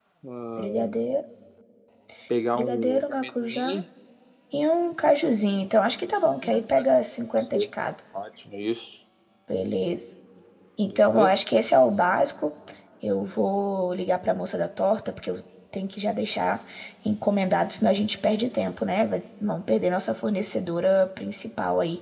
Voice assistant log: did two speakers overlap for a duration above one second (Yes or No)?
Yes